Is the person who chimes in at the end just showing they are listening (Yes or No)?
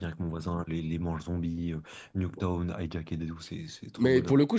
No